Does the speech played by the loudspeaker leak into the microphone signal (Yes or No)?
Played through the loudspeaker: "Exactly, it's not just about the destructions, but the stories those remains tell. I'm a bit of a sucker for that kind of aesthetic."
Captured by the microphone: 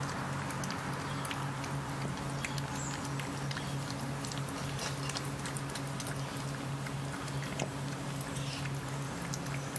No